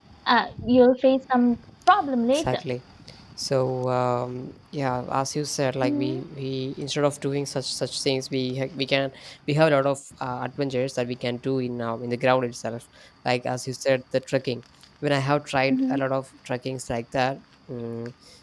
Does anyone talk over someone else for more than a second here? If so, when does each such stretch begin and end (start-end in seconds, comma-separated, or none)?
none